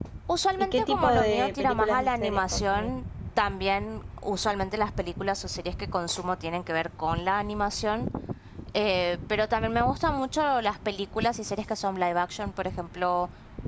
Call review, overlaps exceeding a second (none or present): present